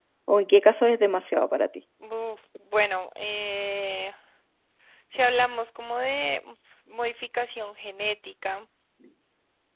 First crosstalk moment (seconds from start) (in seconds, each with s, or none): none